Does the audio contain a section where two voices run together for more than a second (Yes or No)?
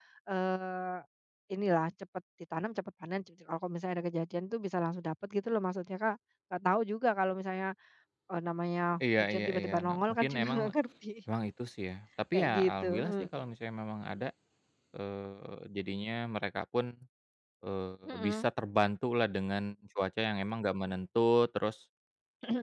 Yes